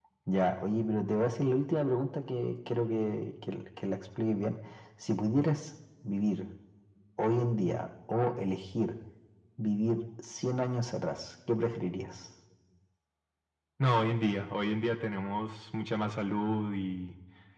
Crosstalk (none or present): none